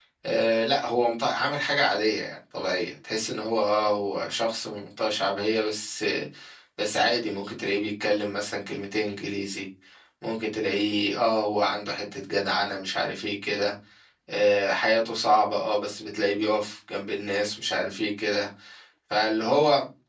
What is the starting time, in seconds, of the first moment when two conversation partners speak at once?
none

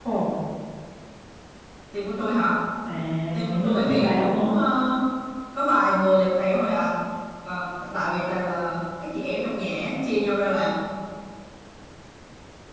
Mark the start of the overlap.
3.3 s

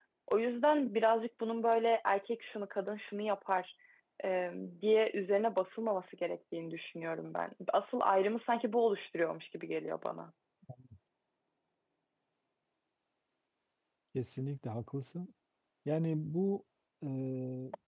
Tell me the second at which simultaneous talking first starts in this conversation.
none

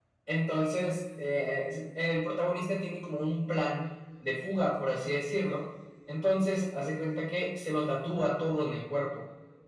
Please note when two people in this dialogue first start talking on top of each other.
none

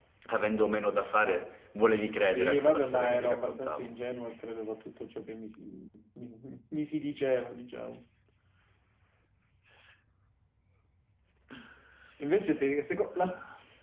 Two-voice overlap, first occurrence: 2.2 s

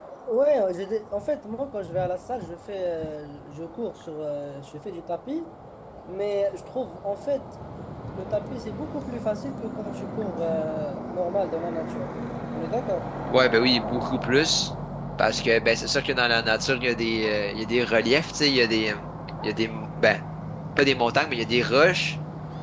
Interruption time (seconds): none

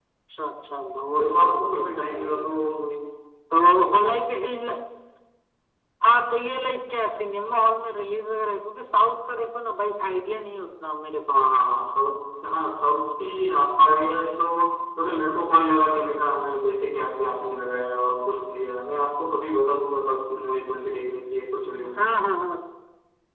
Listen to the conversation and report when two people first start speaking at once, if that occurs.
1.2 s

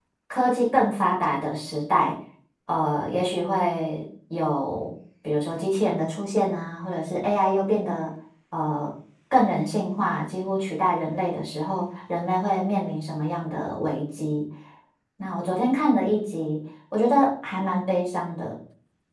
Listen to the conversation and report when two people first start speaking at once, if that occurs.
none

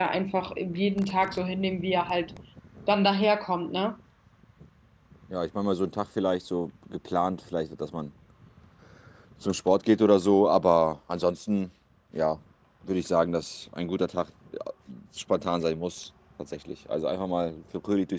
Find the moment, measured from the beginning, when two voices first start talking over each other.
none

